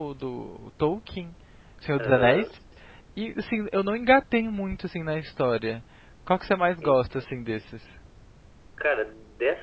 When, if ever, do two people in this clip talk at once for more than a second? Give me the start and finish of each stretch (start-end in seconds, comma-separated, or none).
none